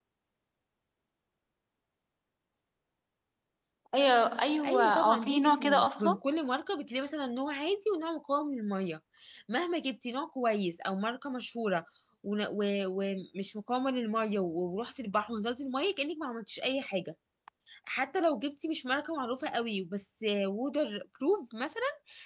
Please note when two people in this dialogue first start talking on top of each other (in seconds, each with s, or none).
4.6 s